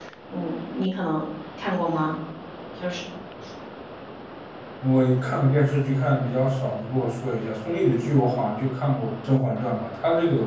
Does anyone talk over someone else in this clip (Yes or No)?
No